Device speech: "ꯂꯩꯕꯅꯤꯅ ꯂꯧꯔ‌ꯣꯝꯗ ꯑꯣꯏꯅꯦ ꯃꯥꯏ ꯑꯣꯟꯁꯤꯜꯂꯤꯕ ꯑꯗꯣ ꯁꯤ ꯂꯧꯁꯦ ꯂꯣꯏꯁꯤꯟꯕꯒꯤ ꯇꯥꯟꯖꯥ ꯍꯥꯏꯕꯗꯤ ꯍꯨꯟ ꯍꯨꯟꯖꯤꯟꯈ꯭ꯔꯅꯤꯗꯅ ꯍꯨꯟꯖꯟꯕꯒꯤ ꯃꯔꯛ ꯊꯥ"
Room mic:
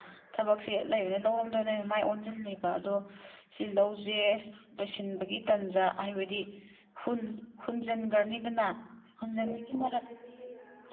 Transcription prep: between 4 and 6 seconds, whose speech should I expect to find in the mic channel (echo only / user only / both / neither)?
echo only